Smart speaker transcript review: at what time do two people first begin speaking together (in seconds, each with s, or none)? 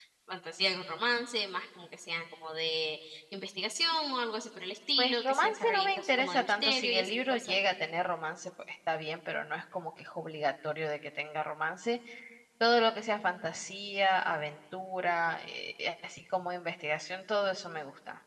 5.0 s